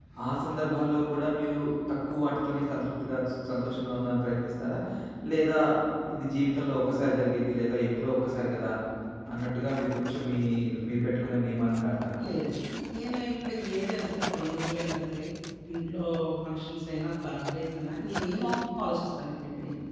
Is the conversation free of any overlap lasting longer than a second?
Yes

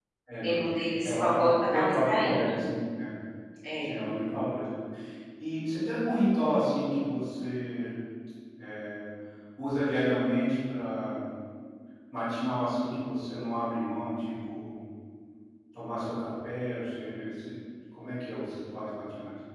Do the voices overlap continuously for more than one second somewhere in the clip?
Yes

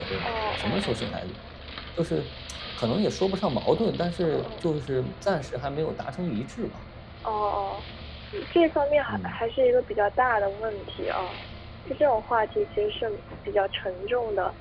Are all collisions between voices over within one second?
Yes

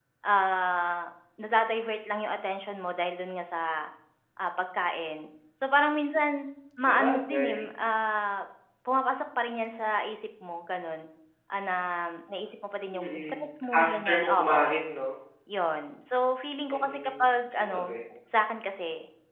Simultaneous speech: Yes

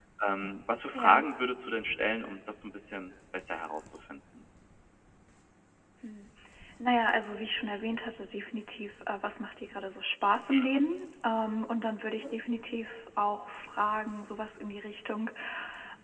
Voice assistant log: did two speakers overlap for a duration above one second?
No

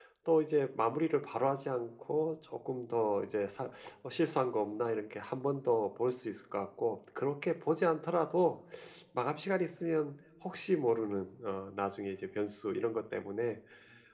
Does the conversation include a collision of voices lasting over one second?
No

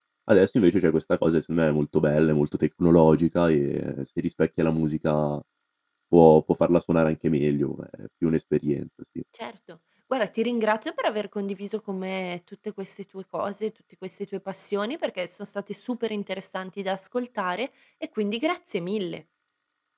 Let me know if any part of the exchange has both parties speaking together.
No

